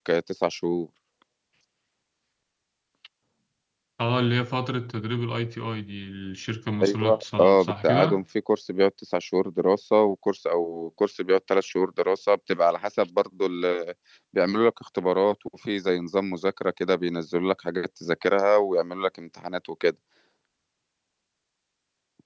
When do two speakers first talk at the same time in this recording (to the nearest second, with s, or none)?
7 s